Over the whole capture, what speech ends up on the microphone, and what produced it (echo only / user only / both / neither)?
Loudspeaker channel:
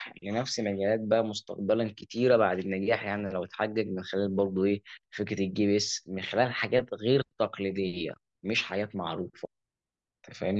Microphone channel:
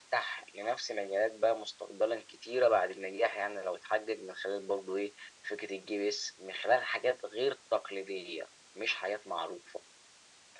echo only